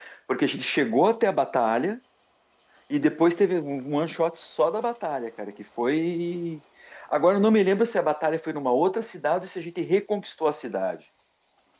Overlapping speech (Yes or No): No